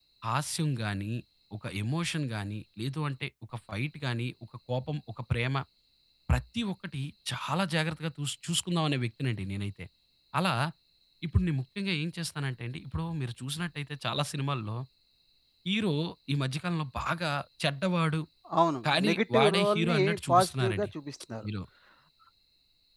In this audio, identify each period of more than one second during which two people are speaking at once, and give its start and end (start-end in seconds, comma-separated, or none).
18.9-20.9